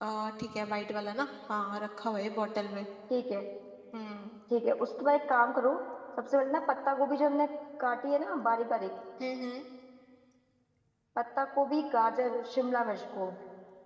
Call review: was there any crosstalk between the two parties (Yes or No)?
No